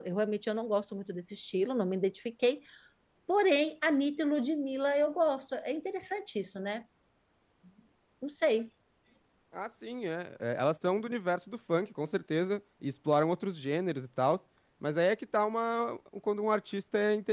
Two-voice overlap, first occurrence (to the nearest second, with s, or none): none